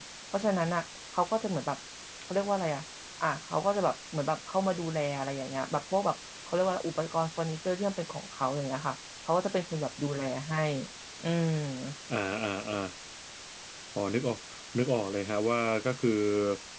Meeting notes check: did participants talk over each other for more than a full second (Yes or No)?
No